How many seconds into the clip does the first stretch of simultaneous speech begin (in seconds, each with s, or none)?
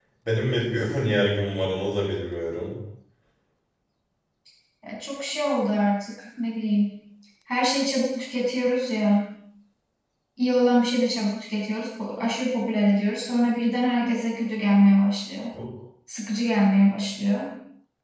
none